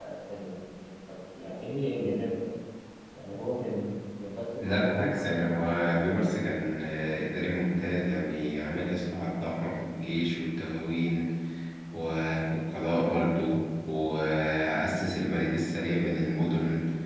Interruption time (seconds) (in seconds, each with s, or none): 4.6 s